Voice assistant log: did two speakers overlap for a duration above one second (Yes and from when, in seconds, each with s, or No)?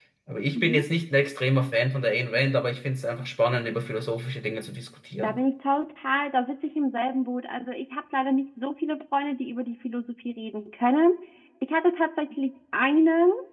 No